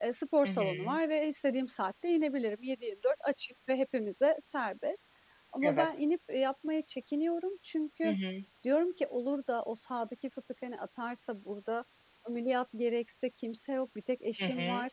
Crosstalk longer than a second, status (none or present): none